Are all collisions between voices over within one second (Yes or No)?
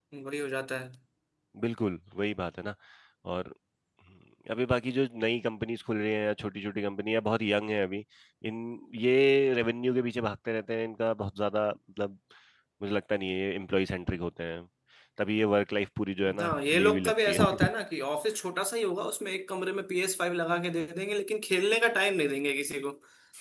No